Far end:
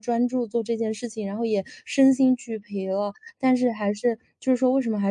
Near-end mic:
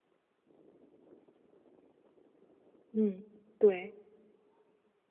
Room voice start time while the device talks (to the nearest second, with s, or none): 3 s